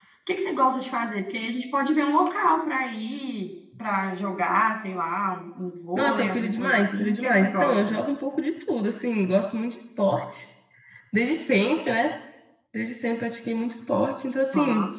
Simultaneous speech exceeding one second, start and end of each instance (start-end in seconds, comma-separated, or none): 6.0-8.0